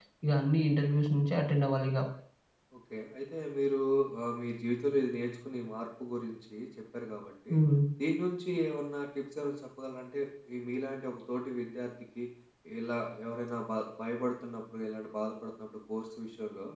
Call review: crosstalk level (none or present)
none